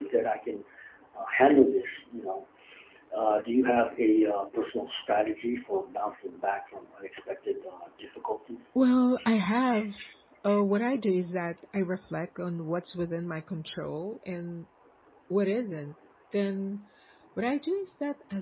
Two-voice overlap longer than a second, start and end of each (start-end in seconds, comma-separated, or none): none